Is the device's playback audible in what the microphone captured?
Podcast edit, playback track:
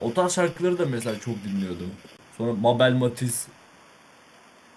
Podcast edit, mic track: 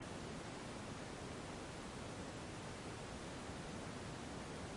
No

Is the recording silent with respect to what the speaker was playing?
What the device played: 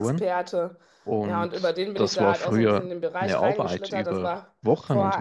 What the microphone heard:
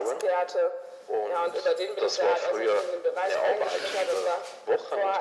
No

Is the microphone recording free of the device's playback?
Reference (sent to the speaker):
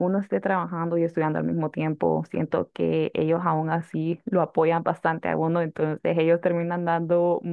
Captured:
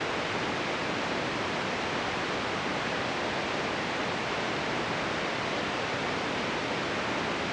Yes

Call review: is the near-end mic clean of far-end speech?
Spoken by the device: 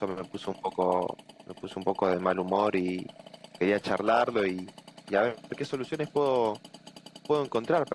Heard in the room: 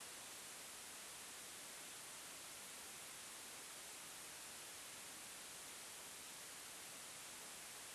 Yes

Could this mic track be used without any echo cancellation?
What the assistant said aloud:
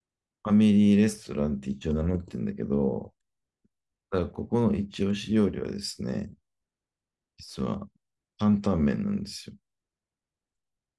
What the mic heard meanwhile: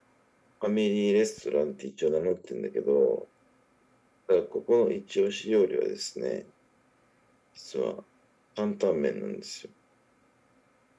No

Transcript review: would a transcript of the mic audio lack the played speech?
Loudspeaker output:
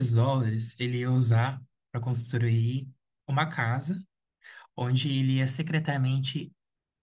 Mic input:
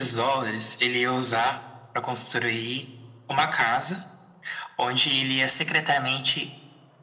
No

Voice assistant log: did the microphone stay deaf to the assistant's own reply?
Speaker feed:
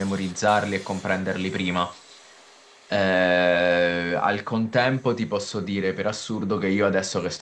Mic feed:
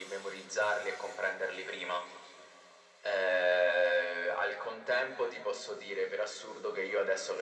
No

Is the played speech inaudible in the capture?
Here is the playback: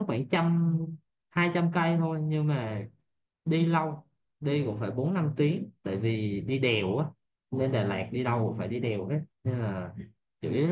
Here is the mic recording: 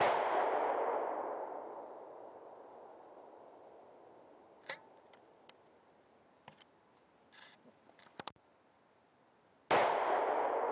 Yes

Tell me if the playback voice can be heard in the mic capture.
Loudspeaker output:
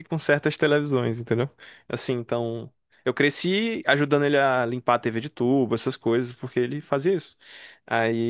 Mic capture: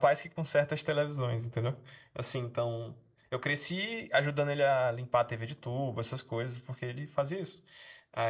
Yes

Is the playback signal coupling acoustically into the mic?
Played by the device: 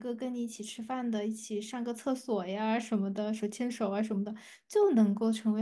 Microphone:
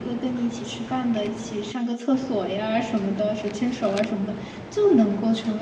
Yes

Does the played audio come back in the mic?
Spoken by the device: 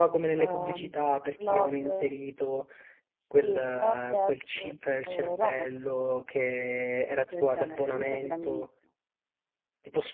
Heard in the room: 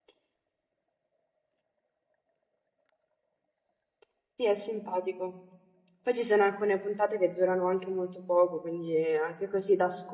No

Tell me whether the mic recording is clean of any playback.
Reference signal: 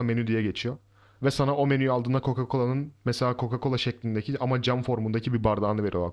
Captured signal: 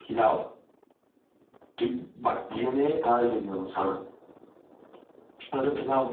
Yes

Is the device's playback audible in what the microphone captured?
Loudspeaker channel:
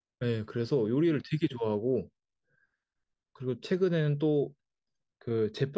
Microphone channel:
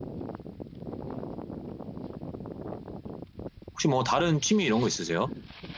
No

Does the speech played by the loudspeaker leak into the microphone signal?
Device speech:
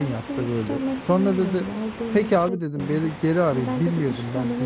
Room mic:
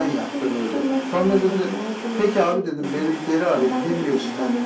Yes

